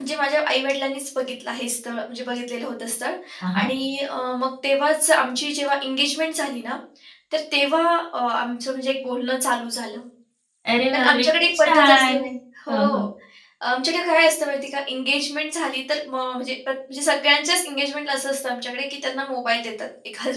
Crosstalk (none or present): present